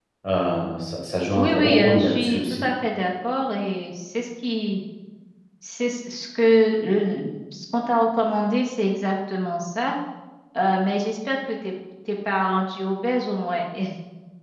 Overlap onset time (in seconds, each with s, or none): 1.4 s